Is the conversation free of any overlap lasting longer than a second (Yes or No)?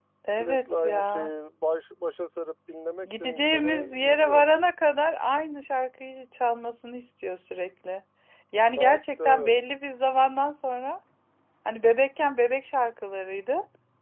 No